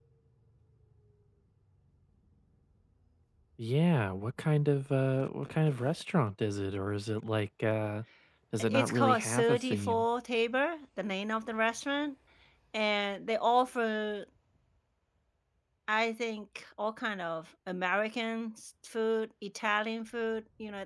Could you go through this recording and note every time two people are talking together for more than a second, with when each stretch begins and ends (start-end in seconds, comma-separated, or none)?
8.6-10.1